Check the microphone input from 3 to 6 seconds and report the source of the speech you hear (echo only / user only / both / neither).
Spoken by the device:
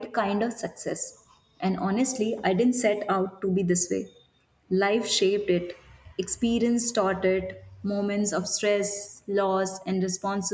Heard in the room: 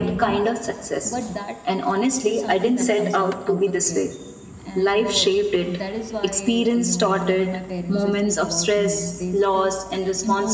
both